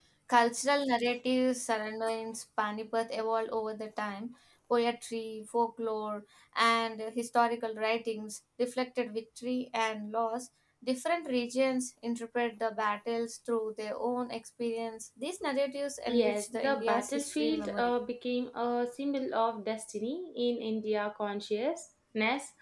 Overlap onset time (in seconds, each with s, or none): 16.1 s